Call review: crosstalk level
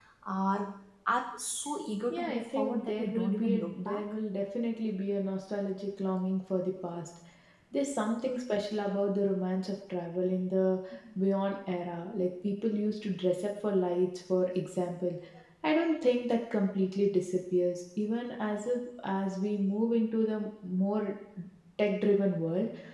present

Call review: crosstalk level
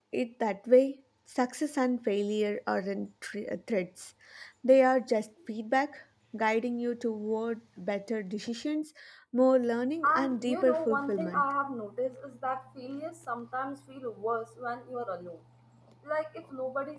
present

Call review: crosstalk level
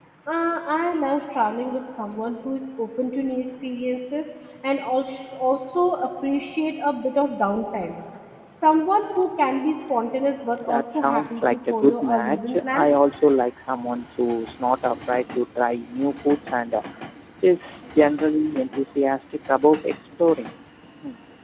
present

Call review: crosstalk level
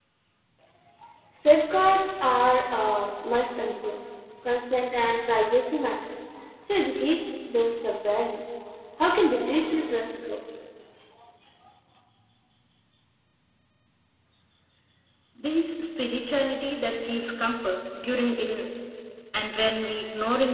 none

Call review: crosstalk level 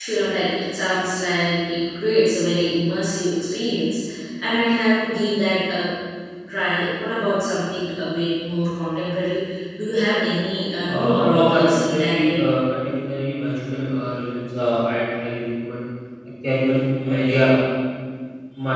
present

